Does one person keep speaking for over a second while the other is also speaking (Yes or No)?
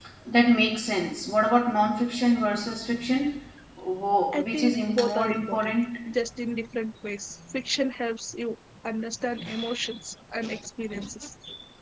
Yes